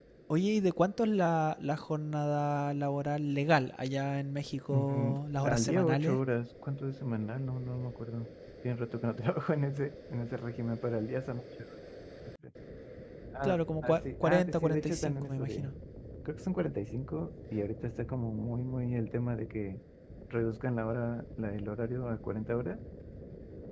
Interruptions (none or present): present